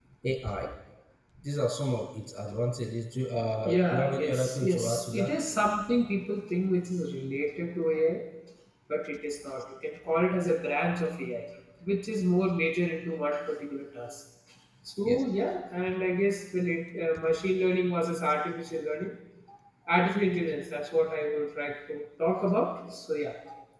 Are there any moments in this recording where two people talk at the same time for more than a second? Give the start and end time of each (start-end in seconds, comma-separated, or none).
3.6-5.3